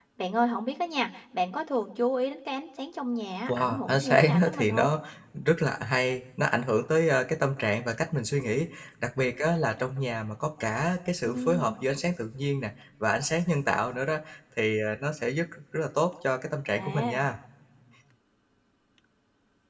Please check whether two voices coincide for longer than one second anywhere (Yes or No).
Yes